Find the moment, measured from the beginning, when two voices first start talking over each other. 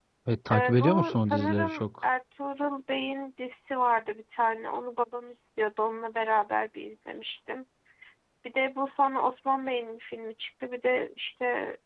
0.5 s

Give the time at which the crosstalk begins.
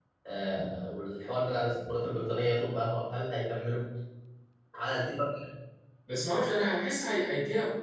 none

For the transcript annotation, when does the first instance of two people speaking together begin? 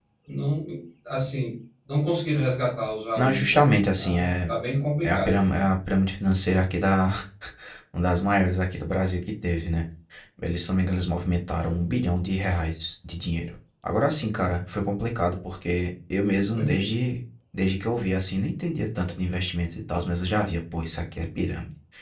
3.2 s

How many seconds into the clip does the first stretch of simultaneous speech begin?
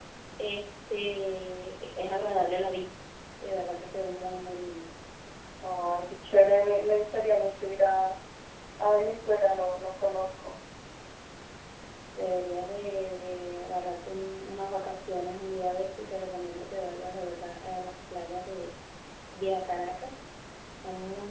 none

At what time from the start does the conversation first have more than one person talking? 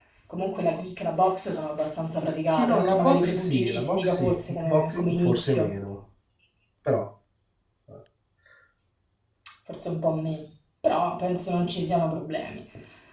2.5 s

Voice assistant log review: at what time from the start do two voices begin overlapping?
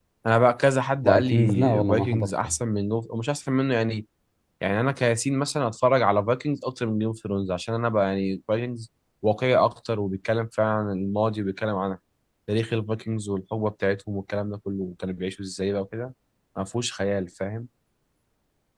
1.0 s

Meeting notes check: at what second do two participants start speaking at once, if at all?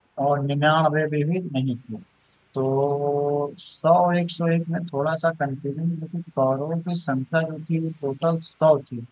none

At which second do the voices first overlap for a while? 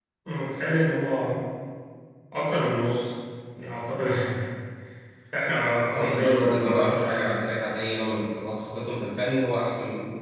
5.9 s

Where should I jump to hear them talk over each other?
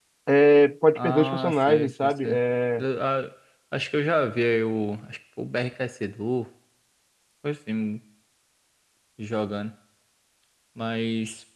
0.9 s

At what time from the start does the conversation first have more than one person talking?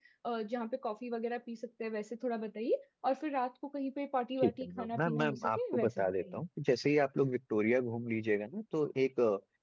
4.4 s

